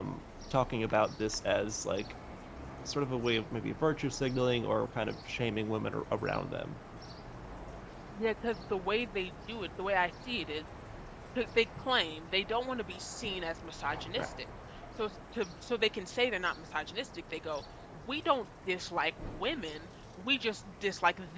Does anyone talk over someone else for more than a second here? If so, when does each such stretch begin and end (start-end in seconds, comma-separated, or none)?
none